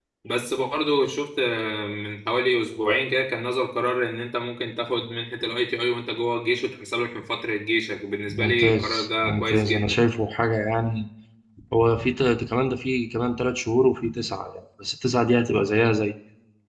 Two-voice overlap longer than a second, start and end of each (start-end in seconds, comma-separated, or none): 8.3-10.0